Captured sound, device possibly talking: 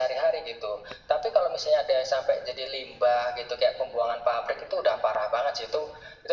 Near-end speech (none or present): none